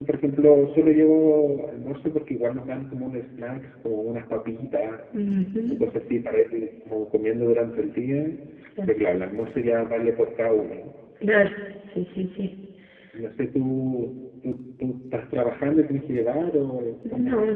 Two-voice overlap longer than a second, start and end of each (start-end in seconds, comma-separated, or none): none